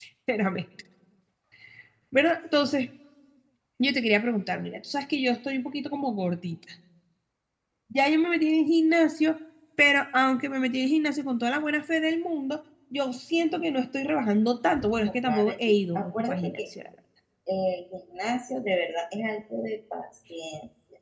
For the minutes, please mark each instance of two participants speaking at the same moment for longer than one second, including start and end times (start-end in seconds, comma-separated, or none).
15.0-16.6